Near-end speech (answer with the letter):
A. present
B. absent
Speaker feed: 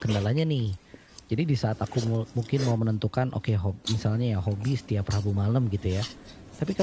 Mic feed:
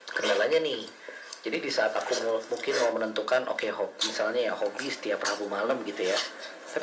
B